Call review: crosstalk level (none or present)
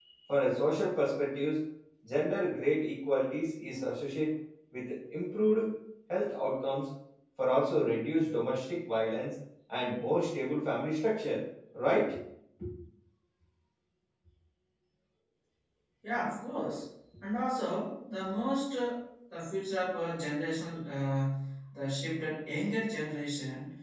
none